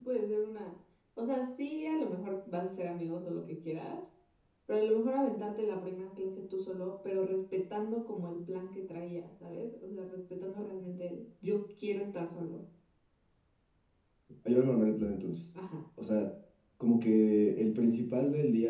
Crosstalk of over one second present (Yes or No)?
No